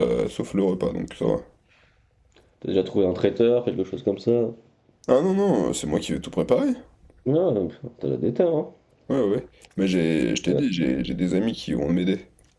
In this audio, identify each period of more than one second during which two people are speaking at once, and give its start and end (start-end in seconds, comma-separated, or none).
none